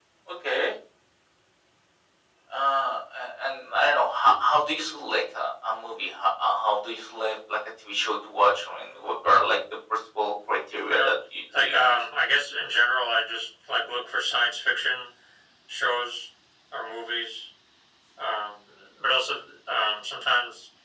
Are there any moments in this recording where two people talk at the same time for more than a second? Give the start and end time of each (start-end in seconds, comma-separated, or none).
none